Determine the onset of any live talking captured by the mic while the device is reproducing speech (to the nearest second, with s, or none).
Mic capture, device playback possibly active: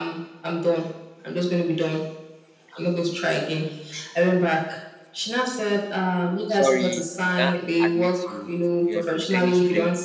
6 s